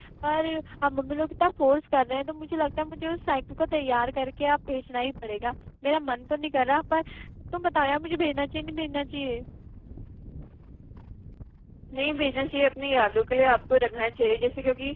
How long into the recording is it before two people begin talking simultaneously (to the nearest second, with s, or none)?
none